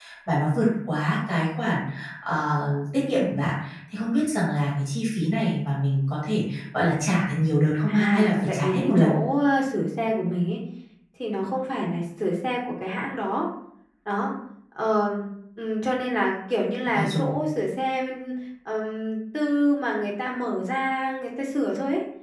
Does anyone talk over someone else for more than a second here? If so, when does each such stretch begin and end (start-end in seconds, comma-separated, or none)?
7.9-9.1